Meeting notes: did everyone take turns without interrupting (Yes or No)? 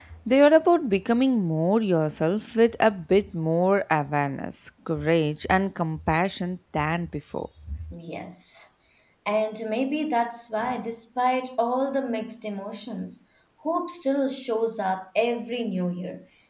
Yes